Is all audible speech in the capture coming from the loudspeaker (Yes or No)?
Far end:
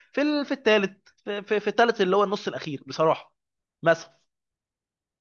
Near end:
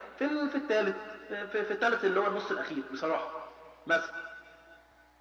Yes